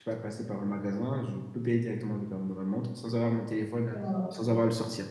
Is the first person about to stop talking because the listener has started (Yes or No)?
No